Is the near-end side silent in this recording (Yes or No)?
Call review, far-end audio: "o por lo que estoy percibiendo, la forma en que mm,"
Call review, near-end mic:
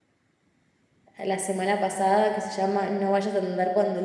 No